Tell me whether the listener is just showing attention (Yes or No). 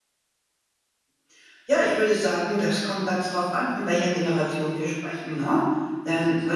Yes